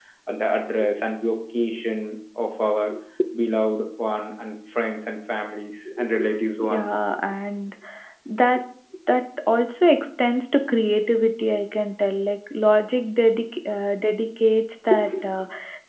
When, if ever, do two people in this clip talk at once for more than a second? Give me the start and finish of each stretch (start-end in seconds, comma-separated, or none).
none